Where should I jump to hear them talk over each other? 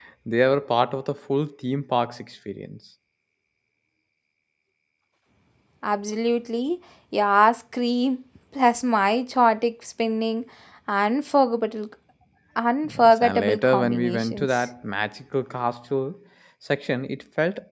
12.8 s

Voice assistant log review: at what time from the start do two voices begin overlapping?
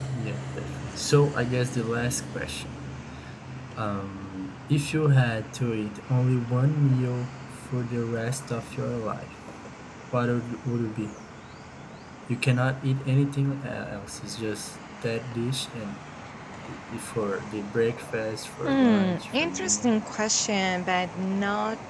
18.6 s

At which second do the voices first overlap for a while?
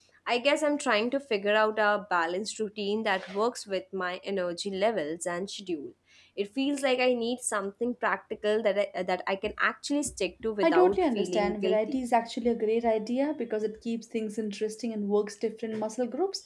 10.6 s

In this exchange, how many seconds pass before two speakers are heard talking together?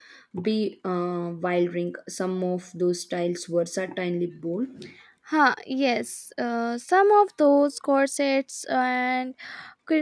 none

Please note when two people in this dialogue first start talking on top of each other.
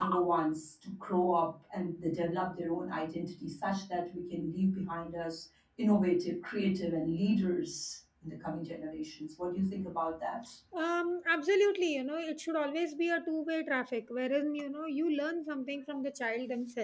none

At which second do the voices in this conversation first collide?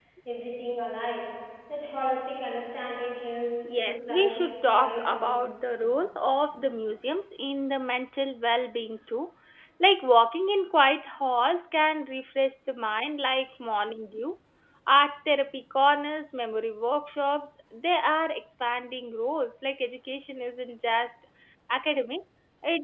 3.7 s

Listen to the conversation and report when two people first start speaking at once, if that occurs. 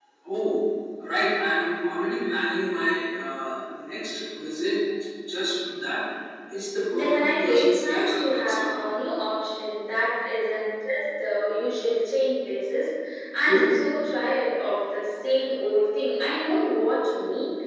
6.9 s

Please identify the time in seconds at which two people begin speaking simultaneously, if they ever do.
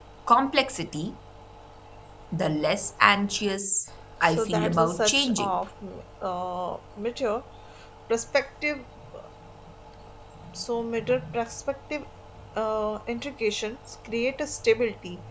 4.2 s

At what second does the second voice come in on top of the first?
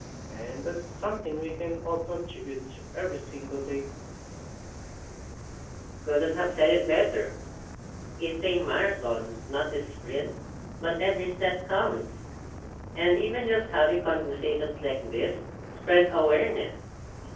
none

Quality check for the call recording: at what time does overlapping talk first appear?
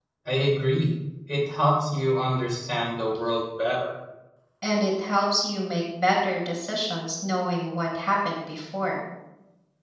none

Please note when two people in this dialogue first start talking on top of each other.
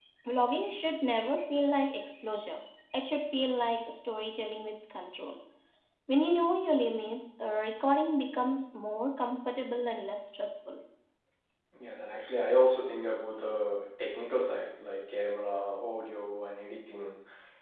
none

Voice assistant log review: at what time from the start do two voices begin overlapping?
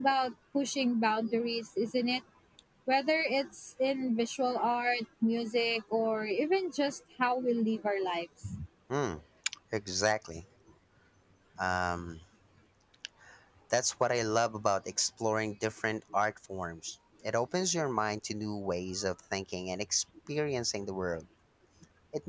none

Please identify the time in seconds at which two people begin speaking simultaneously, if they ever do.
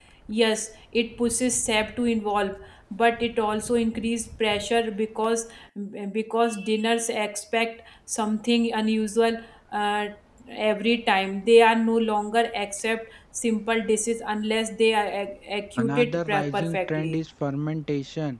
15.8 s

